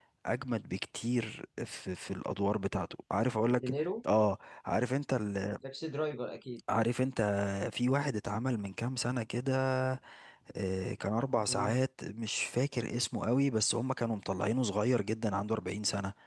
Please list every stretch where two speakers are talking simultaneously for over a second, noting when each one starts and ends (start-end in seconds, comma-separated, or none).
none